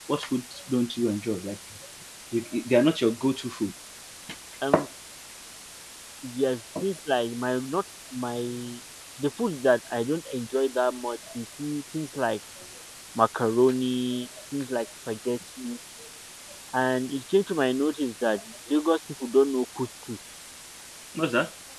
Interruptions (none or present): none